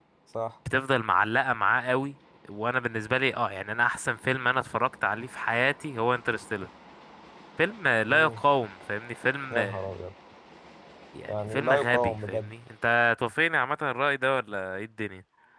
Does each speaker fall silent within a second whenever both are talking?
No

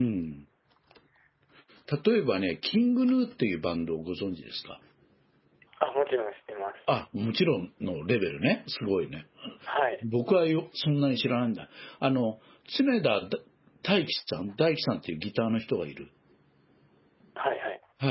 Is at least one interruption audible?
No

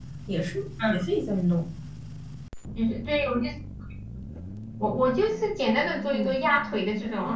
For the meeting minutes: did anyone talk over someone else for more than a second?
No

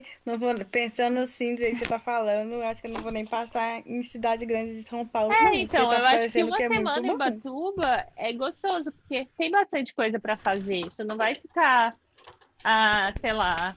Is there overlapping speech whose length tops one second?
Yes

